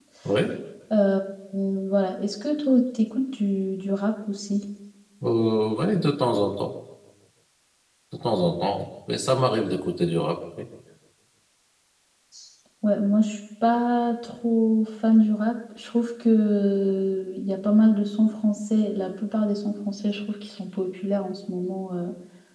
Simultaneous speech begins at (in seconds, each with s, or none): none